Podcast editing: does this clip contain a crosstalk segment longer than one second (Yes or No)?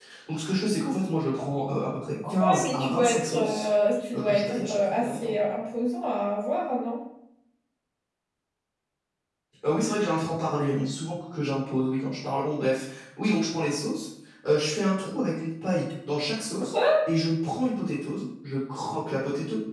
Yes